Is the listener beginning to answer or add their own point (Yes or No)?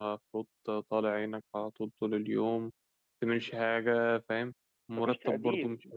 No